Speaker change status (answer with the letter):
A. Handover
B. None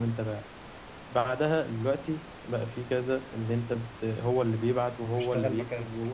B